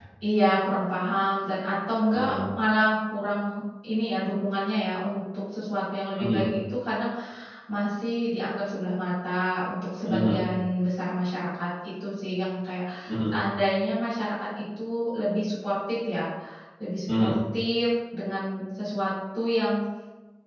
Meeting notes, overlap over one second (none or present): none